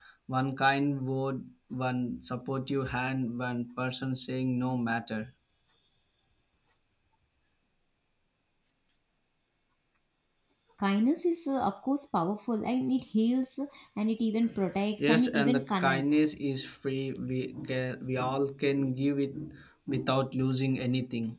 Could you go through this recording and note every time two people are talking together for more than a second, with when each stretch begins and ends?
15.0-16.3

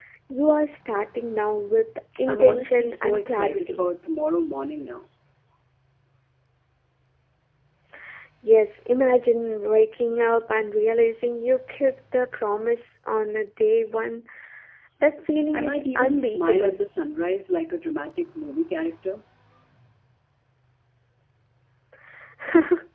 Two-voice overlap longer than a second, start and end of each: 2.3-3.8, 15.5-16.8

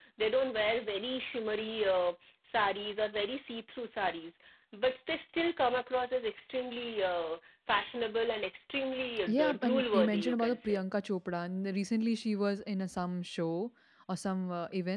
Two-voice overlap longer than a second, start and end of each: 9.3-10.8

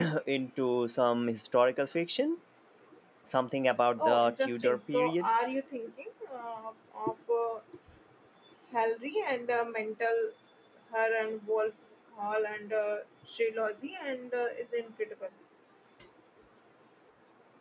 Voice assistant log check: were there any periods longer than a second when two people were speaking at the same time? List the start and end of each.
4.0-5.3

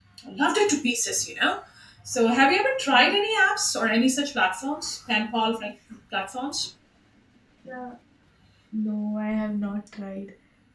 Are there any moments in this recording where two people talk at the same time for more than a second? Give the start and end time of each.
none

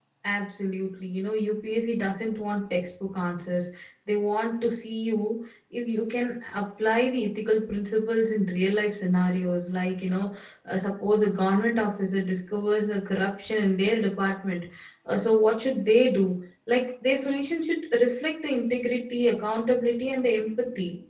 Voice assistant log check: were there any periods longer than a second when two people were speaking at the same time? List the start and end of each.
none

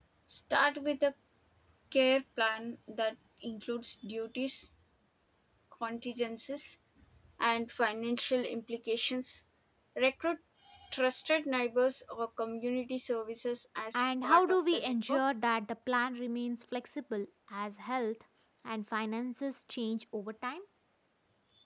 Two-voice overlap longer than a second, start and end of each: 13.9-15.2

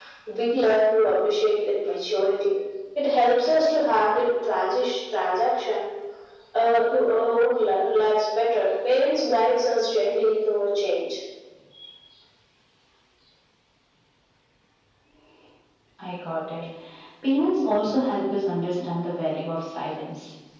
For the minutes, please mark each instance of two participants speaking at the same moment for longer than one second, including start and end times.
none

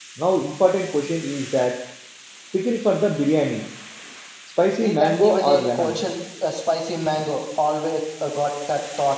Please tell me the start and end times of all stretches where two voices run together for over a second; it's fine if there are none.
4.8-6.0

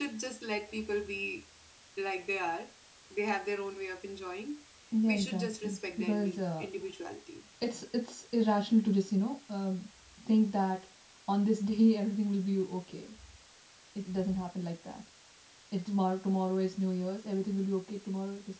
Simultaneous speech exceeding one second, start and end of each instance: 5.1-6.7

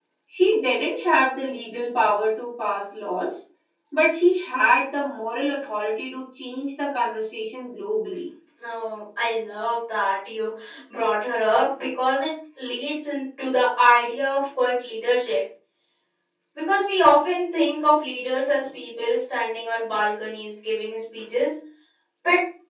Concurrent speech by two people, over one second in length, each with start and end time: none

